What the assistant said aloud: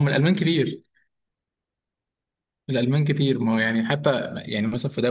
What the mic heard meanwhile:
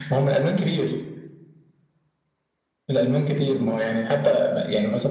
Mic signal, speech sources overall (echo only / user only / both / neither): echo only